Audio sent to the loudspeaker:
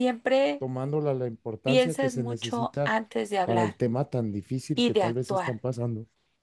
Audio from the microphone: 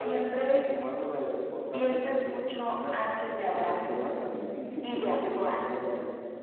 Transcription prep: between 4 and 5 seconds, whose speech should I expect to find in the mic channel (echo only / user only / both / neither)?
echo only